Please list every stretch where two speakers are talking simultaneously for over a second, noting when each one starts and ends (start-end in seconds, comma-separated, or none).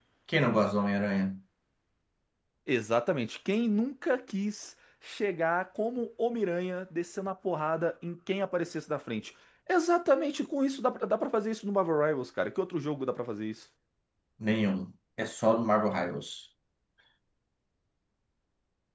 none